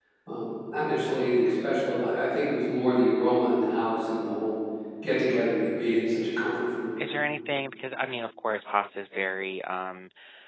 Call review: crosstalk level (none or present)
none